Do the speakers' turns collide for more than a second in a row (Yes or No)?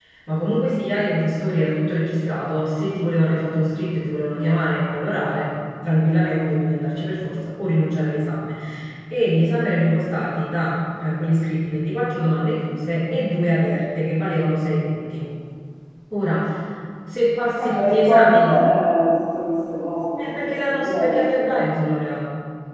Yes